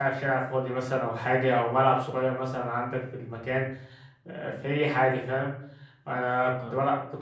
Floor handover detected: No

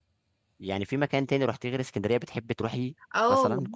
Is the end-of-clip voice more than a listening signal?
Yes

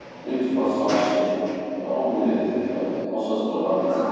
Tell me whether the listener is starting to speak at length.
Yes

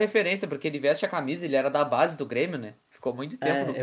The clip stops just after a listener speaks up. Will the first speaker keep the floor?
No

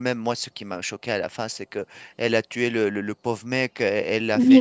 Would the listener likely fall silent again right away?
Yes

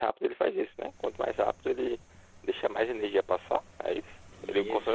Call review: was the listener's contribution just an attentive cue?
No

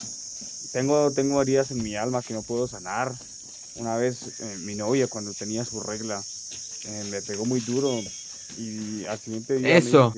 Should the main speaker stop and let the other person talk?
Yes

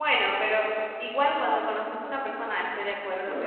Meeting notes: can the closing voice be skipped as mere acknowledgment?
No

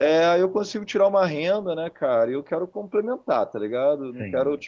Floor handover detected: No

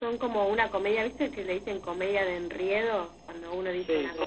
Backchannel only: Yes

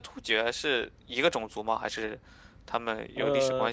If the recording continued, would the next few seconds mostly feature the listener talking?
Yes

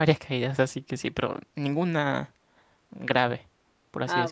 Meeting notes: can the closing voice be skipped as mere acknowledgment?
No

